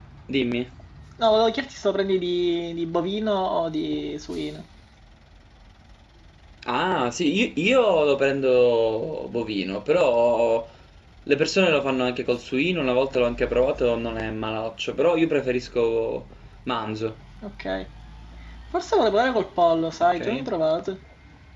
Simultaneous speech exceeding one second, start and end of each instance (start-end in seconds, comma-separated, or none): none